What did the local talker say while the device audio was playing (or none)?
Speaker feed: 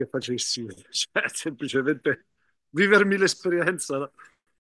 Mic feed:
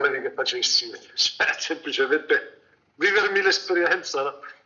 none